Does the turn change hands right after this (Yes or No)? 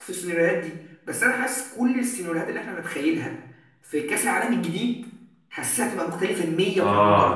Yes